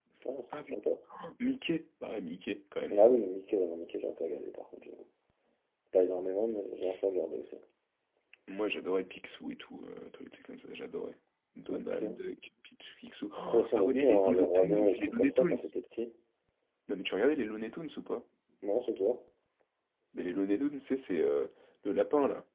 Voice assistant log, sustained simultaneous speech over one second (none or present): present